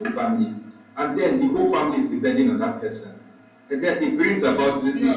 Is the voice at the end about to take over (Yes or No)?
No